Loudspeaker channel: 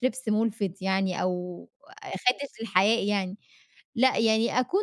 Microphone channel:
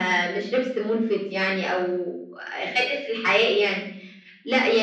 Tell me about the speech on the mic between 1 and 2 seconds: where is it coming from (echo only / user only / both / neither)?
echo only